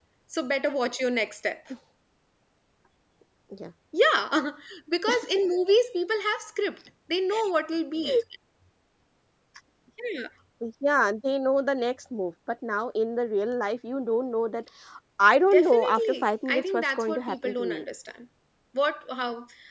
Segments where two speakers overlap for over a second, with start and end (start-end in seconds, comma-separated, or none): 15.5-17.8